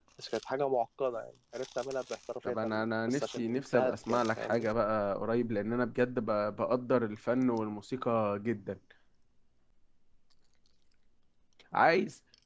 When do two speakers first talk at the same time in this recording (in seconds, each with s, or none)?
2.4 s